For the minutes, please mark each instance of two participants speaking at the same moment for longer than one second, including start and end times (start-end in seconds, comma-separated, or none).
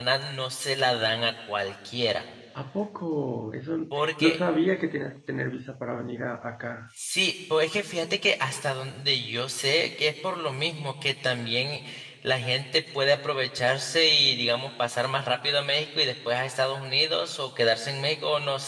none